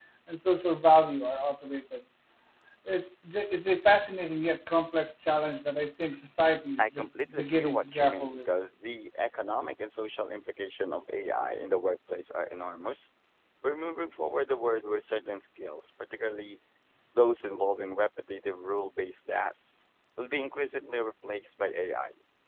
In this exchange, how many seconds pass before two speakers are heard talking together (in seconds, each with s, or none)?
6.8 s